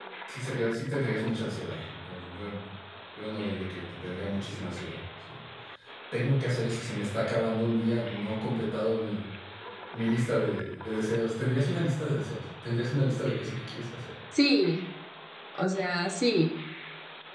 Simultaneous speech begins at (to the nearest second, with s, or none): none